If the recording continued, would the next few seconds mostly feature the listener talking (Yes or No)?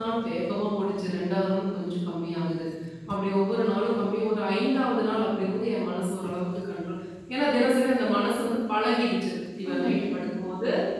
No